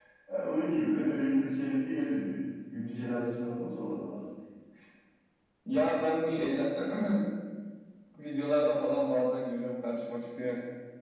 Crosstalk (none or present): none